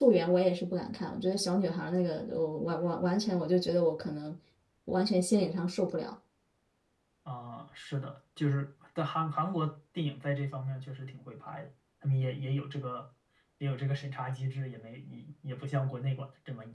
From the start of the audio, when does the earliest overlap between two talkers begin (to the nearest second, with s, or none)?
none